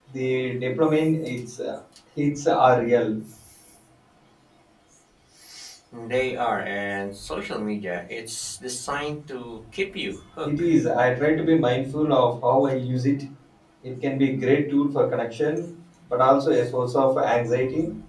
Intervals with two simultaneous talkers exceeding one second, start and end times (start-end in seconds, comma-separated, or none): none